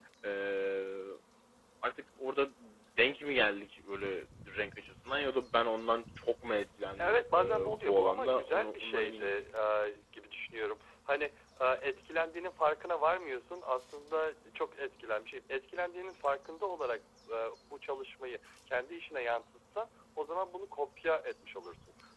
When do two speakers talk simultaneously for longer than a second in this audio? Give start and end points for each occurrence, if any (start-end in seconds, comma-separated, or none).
7.0-9.3